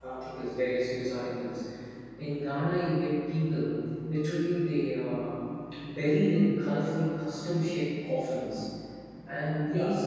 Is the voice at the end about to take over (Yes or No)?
No